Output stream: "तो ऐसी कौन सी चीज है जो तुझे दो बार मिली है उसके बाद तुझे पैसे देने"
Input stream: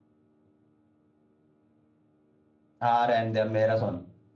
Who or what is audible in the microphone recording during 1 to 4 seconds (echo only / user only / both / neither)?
user only